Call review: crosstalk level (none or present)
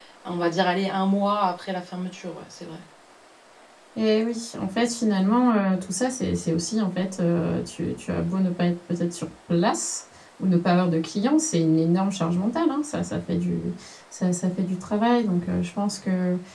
none